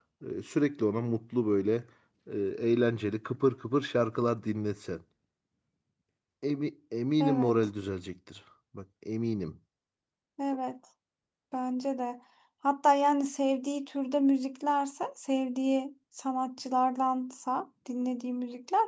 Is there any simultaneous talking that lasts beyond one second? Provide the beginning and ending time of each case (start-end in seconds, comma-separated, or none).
none